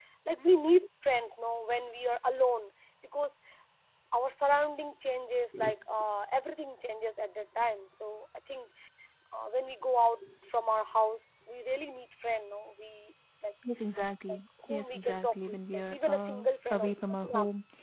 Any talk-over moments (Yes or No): Yes